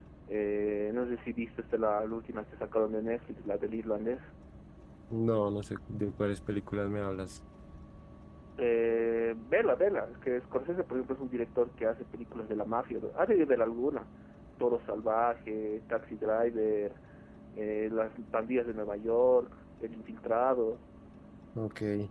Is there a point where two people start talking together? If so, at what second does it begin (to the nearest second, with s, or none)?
none